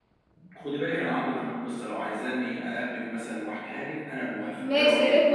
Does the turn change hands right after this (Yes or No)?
Yes